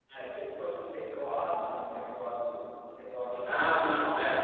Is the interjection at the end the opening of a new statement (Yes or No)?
Yes